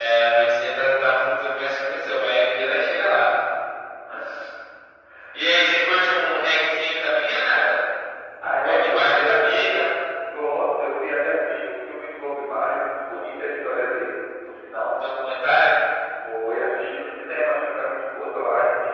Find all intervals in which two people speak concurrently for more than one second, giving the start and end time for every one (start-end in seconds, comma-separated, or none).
8.6-9.9